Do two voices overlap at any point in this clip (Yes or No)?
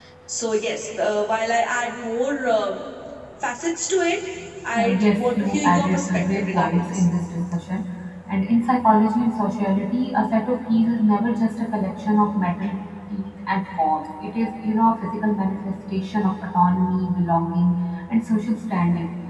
Yes